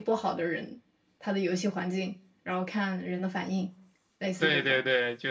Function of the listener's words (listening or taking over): taking over